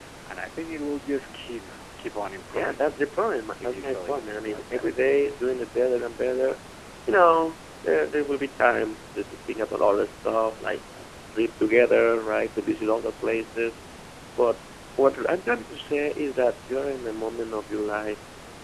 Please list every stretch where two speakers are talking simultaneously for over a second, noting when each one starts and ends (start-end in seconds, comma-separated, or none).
3.6-4.9